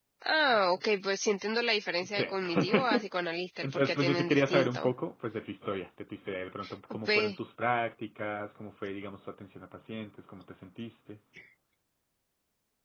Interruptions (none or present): present